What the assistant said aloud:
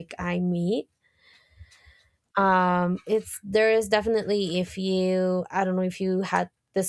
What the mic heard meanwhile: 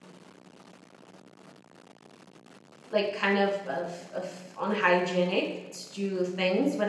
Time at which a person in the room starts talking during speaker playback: 3 s

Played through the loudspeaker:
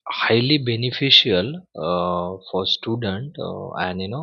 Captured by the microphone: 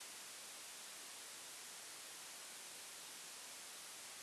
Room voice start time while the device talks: none

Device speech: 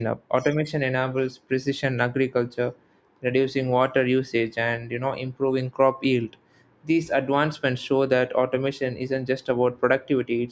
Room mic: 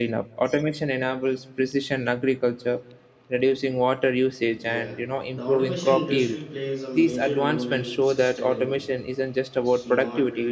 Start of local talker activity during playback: 5 s

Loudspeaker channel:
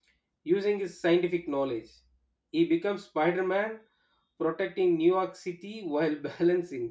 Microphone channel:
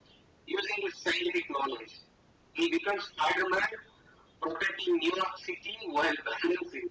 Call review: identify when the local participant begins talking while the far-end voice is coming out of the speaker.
none

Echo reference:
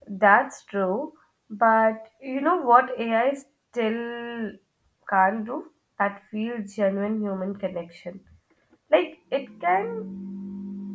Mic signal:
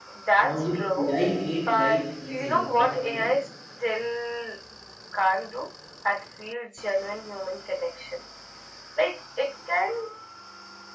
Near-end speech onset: 0 s

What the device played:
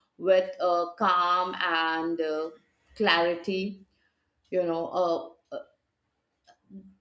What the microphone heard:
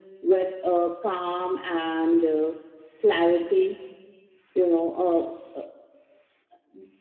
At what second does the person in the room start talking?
none

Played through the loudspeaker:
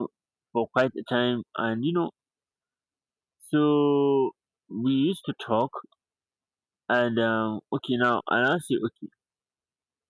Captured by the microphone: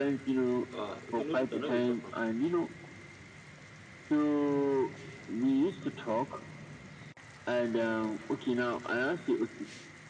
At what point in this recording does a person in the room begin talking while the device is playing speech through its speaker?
1 s

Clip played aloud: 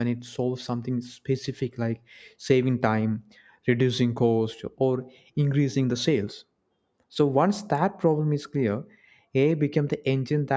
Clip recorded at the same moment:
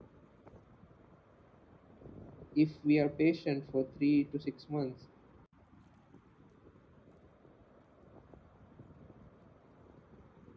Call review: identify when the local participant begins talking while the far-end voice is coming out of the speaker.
3 s

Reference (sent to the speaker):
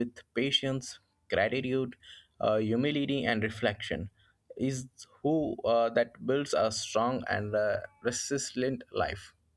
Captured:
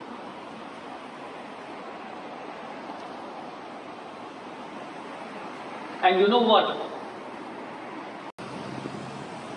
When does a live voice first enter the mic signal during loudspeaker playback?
6 s

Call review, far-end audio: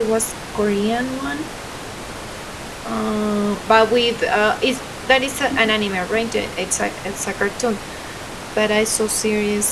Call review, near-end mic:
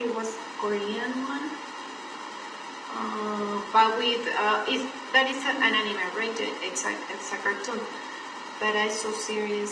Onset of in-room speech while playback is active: none

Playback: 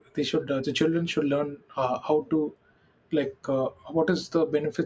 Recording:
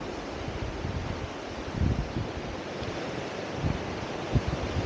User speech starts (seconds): none

